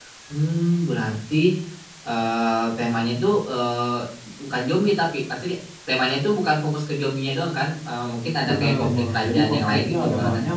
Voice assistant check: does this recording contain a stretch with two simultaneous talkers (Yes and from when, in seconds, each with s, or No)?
Yes, from 8.4 s